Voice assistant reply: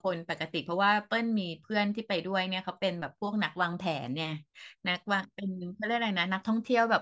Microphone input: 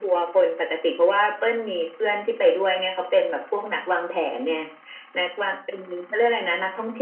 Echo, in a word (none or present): present